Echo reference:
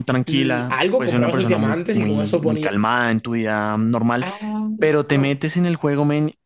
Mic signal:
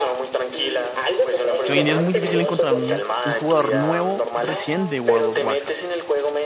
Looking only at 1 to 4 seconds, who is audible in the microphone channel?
both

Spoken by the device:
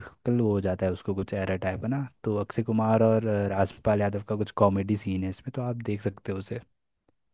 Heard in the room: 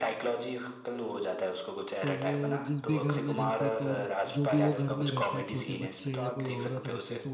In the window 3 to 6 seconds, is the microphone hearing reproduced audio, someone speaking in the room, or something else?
both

